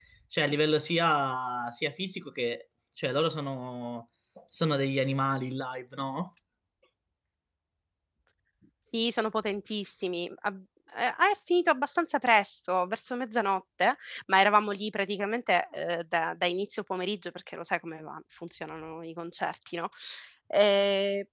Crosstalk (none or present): none